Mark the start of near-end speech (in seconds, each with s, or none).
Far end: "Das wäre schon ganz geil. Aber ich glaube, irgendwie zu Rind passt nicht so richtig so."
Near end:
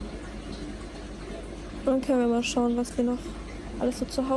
1.8 s